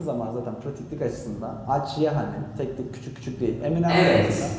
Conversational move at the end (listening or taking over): listening